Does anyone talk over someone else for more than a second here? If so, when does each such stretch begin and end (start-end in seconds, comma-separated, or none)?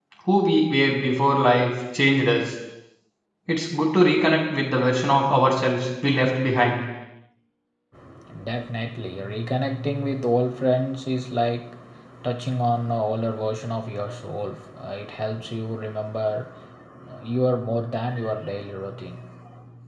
none